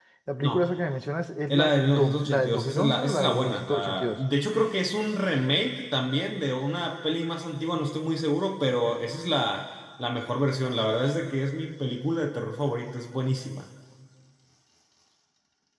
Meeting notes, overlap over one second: present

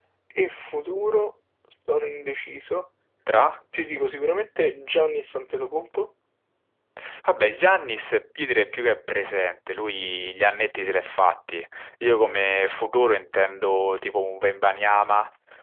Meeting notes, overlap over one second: none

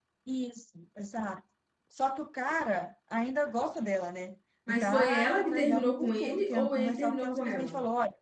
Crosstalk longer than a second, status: present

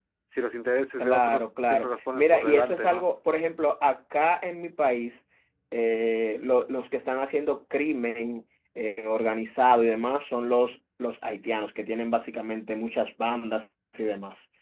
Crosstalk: present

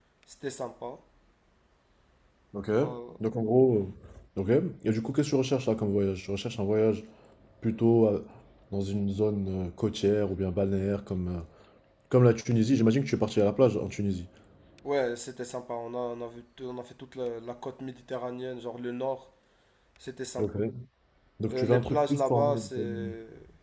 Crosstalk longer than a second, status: present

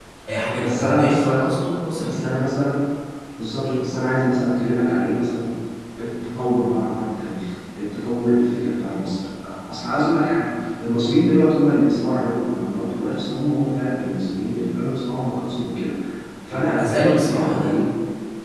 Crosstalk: present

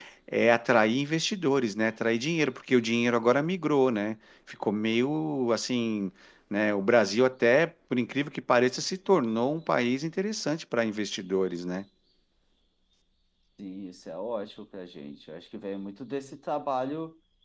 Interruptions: none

